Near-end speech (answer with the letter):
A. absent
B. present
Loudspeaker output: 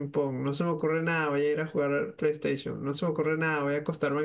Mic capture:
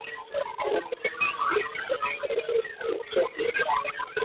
A